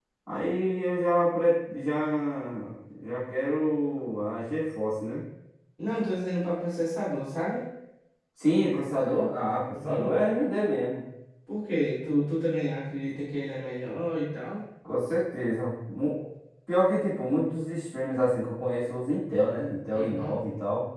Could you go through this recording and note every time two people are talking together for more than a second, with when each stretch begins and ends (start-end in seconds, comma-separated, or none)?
none